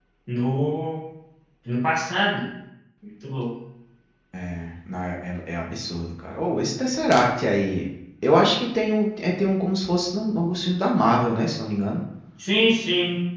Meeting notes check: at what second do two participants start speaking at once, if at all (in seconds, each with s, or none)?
none